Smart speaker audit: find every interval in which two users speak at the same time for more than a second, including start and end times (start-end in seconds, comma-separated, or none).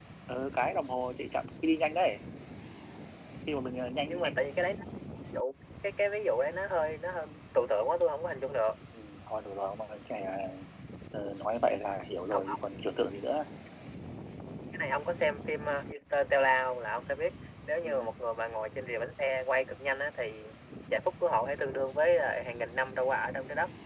none